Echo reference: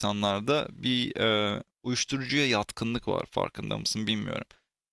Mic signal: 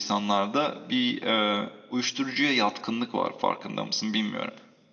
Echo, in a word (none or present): present